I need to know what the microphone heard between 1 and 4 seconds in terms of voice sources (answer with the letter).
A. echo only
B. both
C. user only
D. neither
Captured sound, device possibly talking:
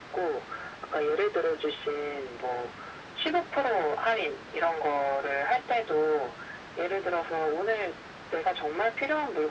A